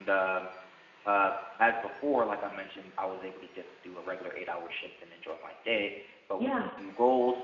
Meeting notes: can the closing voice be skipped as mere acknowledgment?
Yes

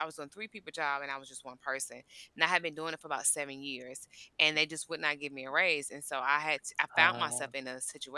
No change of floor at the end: Yes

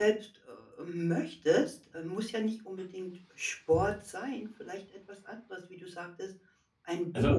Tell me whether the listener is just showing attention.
Yes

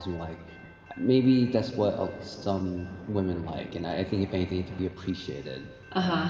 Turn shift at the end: Yes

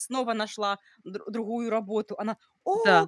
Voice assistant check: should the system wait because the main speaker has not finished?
Yes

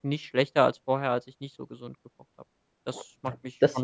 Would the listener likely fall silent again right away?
No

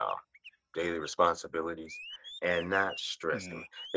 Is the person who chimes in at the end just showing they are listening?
Yes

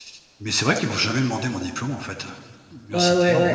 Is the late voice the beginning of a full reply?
Yes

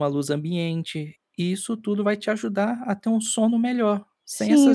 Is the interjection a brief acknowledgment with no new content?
No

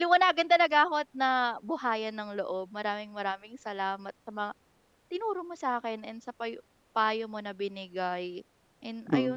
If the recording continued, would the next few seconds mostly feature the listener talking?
Yes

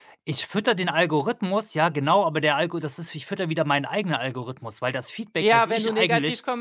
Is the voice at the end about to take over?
Yes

